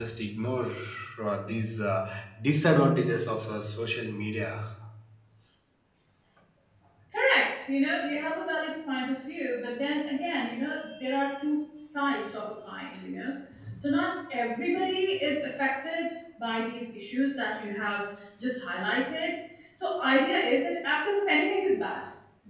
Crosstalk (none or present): none